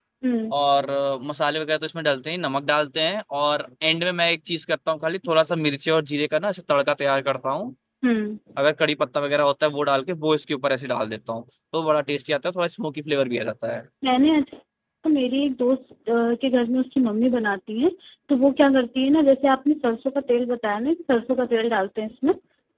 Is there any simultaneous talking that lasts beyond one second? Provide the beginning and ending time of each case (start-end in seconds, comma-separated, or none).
none